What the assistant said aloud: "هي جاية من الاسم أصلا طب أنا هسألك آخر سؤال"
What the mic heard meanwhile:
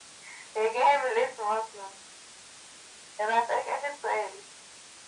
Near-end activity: none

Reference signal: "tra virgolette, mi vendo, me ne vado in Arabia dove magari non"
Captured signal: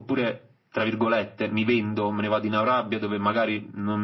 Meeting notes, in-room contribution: none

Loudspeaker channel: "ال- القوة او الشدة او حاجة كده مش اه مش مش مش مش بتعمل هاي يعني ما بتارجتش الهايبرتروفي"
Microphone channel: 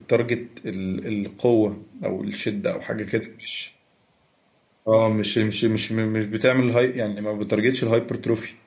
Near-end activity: none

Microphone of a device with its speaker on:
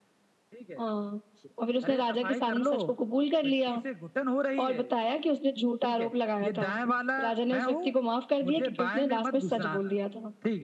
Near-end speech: none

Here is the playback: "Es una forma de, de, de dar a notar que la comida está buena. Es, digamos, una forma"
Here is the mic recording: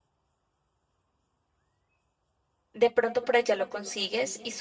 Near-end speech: present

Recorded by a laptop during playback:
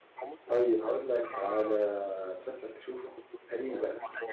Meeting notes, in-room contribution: present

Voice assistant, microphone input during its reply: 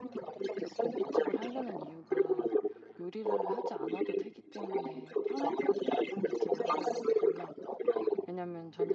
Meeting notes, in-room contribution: present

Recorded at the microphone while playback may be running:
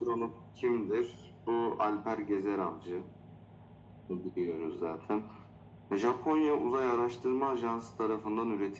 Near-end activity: none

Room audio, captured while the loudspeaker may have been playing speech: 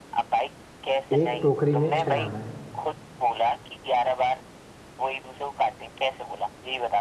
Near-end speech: present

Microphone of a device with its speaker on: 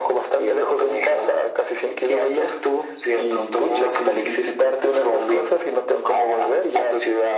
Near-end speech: none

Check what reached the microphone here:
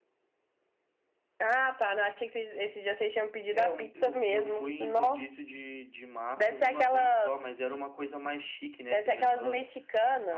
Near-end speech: none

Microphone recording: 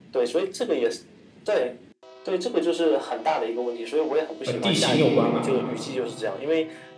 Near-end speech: present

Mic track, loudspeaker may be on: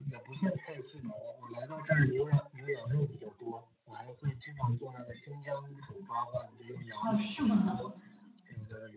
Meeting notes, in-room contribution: present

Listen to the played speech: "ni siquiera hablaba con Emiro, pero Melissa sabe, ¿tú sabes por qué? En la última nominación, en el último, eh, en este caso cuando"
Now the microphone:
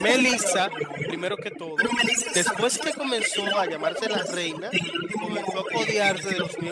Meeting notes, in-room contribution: present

